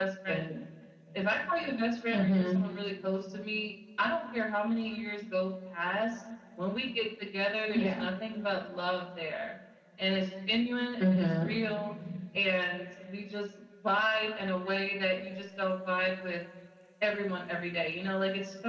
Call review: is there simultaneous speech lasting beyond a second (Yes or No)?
No